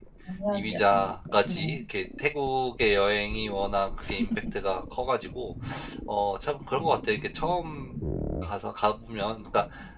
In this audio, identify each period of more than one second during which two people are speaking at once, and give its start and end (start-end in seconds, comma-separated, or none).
0.5-1.8